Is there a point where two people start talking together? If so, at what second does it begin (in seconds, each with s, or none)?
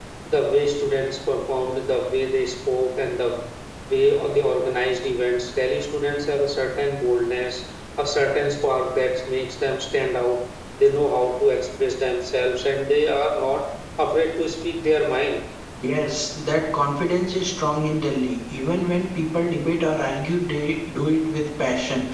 none